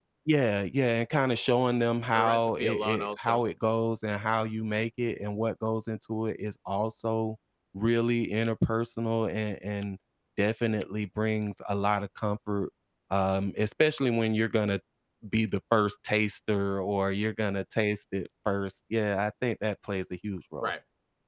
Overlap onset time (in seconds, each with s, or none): 2.1 s